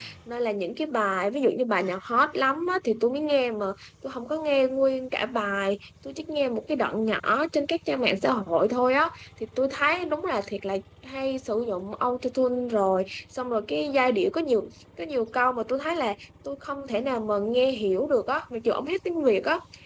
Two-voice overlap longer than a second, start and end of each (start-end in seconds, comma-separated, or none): none